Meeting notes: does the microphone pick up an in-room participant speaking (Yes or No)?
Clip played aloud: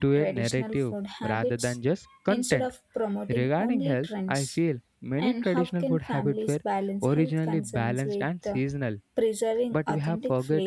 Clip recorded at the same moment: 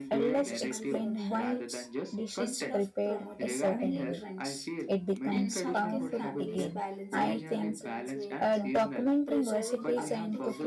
Yes